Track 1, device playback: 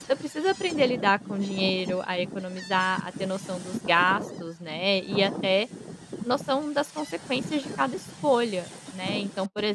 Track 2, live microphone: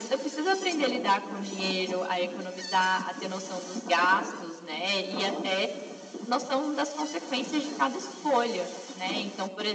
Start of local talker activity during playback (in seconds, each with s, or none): none